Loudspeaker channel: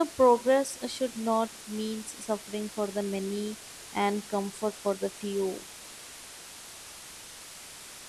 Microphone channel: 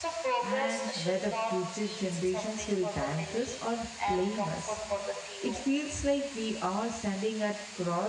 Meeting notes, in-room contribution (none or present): present